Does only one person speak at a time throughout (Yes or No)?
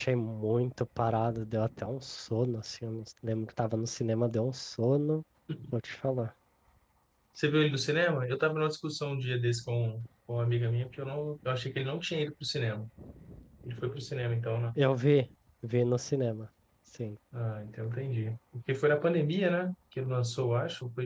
Yes